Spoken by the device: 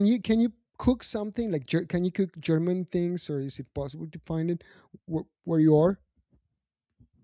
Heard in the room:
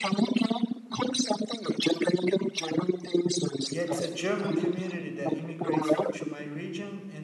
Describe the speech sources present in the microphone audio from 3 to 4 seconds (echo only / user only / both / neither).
both